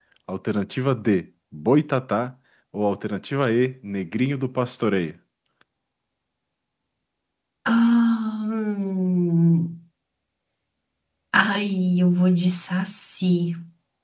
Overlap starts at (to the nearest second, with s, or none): none